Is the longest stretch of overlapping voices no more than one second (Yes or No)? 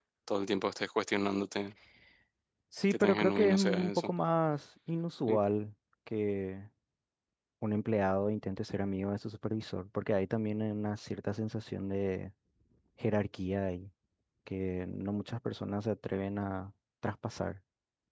No